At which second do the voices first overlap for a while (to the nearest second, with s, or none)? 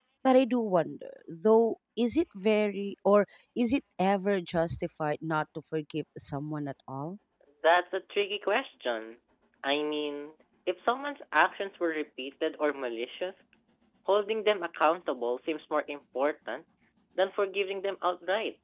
none